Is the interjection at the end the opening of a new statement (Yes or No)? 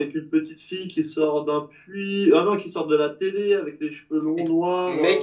Yes